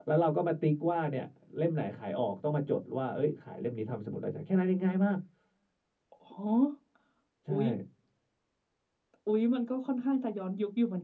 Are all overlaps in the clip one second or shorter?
Yes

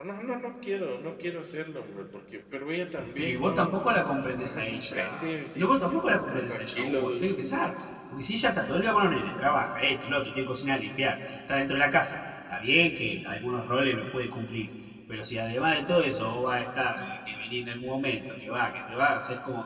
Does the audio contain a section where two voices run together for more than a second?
Yes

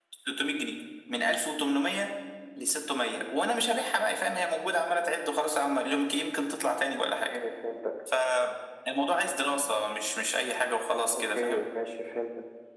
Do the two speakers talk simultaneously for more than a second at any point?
No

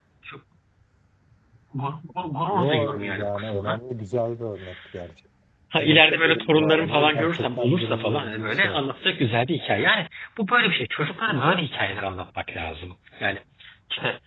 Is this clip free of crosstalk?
No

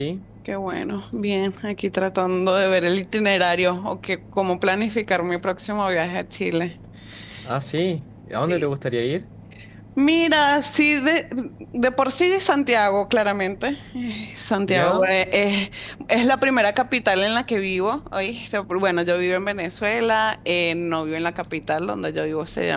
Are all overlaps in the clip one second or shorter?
Yes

